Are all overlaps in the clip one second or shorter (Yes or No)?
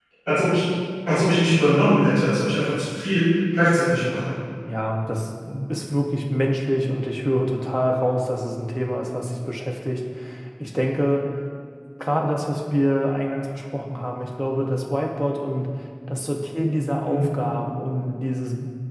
Yes